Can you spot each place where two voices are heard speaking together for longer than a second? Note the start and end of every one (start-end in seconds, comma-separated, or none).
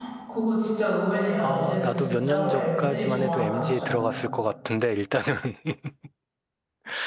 1.4-4.1